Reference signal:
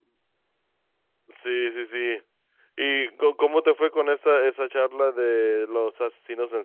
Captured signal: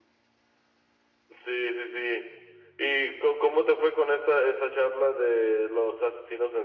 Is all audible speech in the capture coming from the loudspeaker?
Yes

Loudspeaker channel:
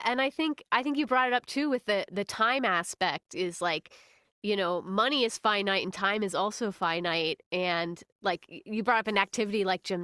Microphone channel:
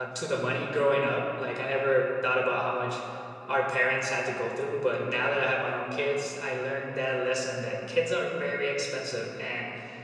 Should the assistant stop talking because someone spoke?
Yes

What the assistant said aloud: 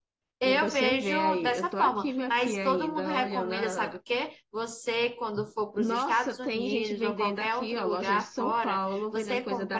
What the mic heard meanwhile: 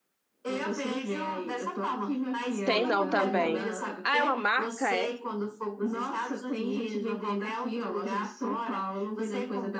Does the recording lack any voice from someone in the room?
No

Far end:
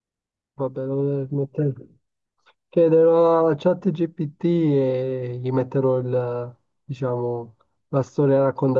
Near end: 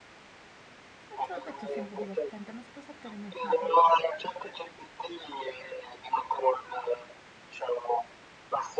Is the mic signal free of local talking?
No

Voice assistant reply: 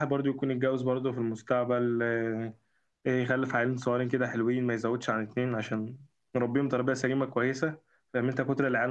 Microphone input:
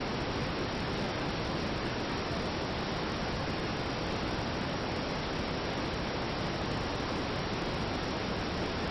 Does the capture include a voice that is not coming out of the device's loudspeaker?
No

